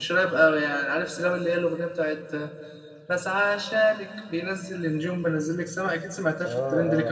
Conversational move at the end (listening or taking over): taking over